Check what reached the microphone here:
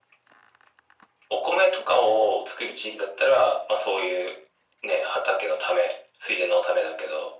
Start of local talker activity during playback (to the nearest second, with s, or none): none